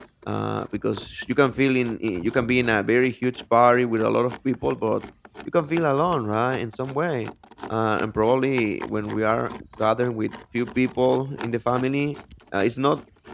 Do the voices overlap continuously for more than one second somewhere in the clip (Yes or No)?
No